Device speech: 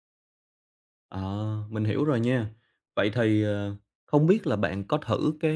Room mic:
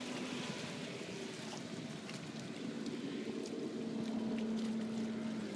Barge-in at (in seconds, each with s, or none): none